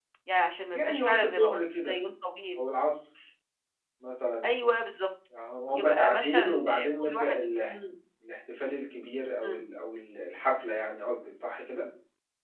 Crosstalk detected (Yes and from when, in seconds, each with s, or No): Yes, from 0.7 s